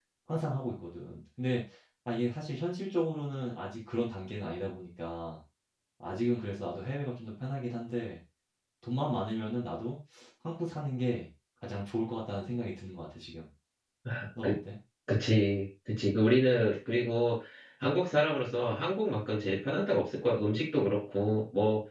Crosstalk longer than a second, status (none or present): none